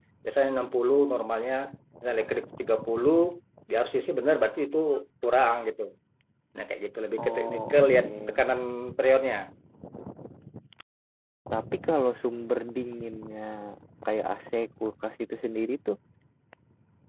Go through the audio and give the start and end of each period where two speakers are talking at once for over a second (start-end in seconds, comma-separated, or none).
7.2-8.4